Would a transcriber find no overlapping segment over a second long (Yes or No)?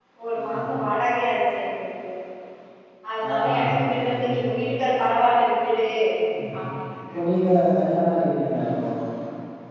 Yes